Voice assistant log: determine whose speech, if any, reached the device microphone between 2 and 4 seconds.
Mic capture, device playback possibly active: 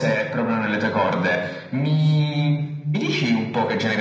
echo only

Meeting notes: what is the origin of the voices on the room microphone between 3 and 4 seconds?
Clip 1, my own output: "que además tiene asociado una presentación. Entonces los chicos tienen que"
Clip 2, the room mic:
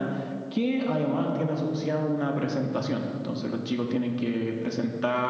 echo only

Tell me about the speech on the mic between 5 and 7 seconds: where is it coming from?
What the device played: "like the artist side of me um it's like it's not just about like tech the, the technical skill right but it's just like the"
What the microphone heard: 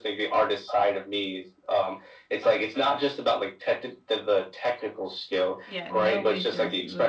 both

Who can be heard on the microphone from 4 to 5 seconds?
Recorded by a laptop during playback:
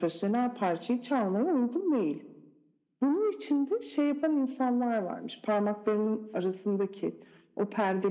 echo only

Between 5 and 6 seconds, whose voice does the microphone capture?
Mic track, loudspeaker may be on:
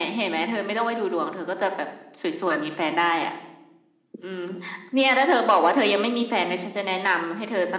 echo only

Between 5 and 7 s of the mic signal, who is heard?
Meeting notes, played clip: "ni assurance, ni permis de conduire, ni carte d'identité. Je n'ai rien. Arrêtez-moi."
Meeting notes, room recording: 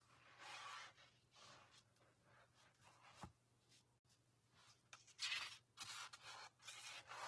neither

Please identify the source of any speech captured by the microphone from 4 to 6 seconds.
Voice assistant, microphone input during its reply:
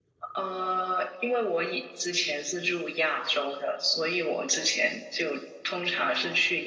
echo only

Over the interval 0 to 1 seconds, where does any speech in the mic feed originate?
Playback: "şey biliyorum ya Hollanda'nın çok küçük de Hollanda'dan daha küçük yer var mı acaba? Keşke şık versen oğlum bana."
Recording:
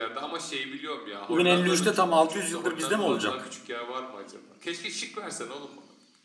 echo only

